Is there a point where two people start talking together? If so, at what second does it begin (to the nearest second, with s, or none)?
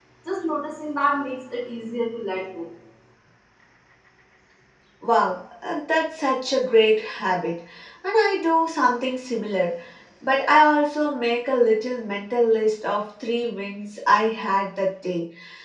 none